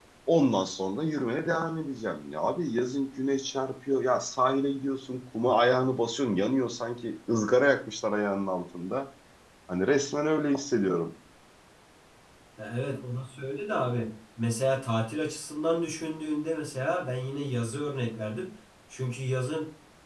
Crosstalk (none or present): none